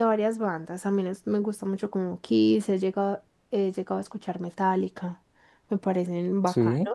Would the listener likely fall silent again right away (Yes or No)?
Yes